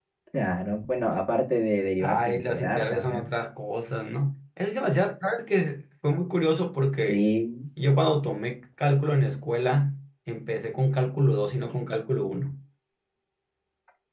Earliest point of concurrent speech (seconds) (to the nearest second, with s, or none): 2 s